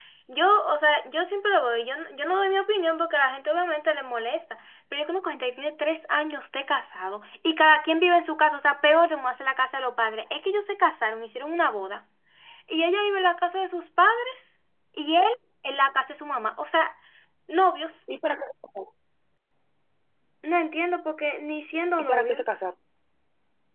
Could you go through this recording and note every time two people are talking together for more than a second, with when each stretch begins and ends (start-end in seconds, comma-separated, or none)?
none